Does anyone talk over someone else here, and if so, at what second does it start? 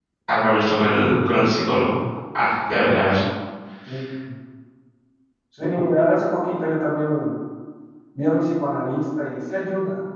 none

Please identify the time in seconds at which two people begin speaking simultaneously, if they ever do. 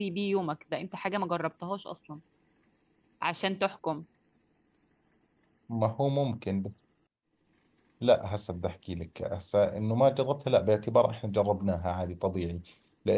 none

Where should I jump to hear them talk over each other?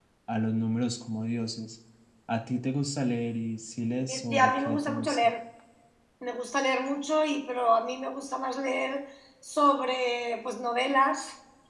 4.0 s

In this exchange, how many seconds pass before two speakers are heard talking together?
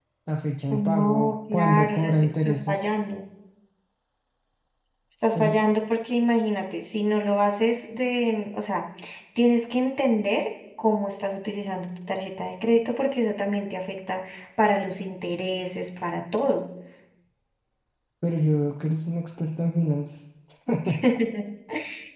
0.7 s

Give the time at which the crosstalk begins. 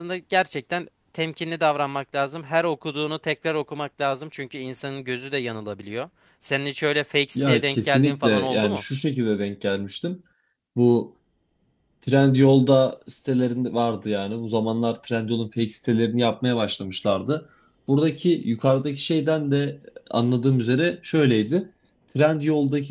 7.4 s

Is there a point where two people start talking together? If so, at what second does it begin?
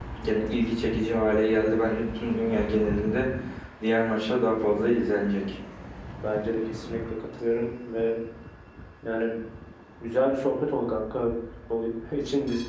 none

